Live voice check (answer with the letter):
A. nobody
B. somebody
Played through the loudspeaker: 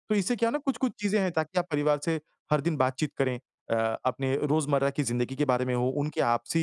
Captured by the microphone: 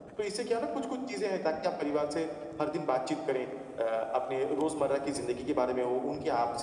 A